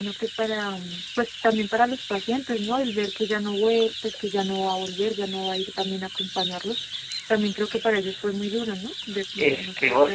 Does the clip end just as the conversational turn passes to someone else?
Yes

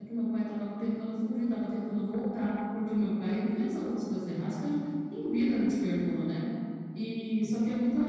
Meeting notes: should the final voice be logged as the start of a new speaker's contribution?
No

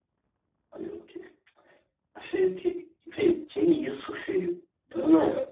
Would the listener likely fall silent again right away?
No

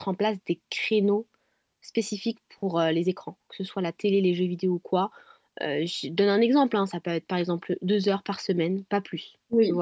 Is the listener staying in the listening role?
No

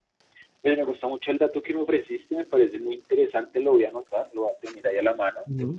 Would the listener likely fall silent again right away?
Yes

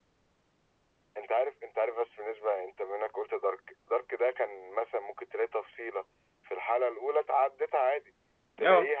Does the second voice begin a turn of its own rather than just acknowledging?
No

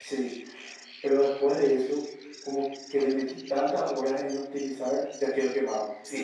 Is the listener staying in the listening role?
No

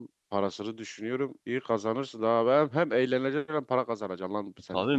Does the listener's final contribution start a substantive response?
Yes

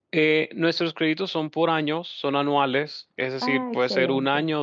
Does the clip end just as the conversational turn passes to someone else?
No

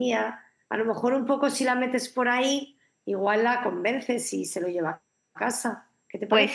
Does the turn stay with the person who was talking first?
No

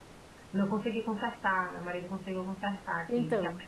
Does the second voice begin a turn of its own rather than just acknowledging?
Yes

